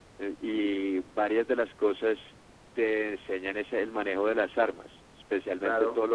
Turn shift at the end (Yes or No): Yes